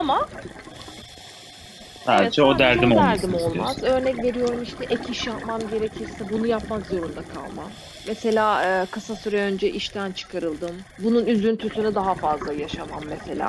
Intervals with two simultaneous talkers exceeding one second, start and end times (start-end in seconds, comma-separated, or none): 2.1-3.8